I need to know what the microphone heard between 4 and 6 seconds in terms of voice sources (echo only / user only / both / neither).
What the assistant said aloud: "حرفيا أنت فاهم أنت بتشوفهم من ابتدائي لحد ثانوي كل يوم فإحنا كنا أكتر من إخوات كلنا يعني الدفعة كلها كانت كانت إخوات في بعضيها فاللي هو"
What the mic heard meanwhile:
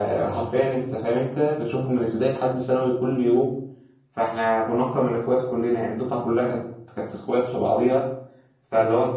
echo only